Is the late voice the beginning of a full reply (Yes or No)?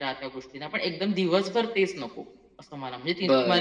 Yes